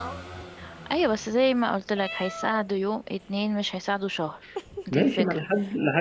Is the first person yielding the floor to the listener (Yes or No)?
Yes